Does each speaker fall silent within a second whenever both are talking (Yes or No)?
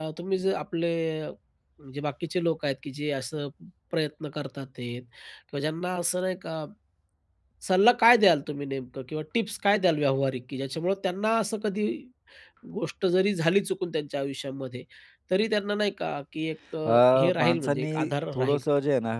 No